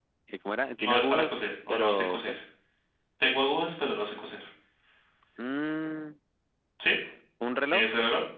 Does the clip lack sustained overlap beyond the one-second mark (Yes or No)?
No